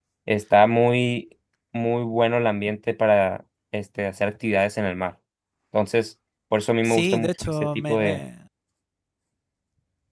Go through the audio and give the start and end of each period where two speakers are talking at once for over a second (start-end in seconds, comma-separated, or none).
6.8-8.2